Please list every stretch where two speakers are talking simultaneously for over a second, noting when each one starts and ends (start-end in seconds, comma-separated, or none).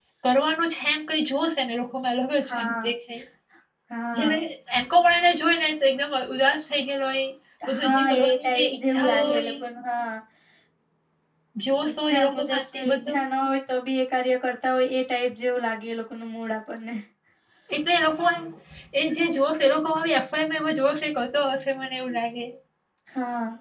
7.8-9.5, 11.9-13.2